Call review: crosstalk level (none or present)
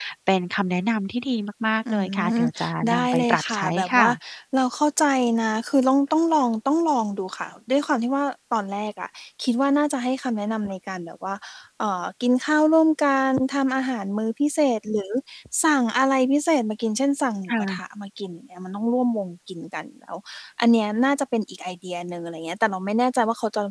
present